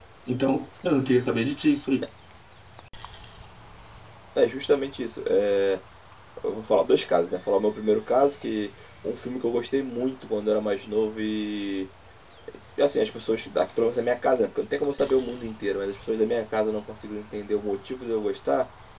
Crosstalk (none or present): none